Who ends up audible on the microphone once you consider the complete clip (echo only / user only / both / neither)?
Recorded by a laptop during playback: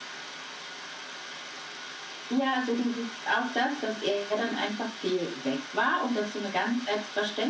echo only